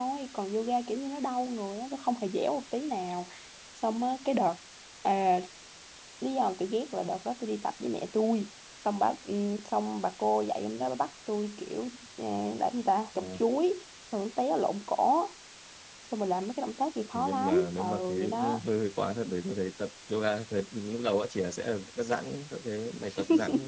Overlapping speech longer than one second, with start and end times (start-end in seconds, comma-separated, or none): 17.1-18.6